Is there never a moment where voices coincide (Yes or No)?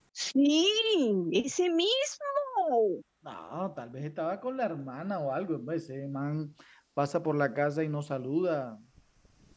Yes